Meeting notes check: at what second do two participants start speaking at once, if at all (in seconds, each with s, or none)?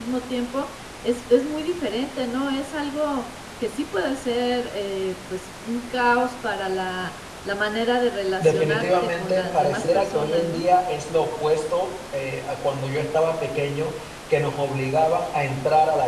8.4 s